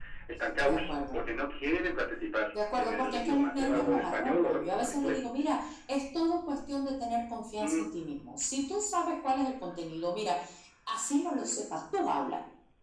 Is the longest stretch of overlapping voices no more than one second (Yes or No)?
No